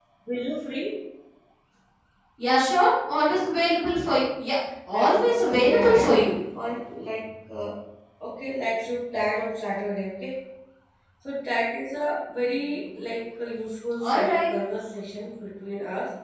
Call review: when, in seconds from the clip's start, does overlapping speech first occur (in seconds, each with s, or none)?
4.9 s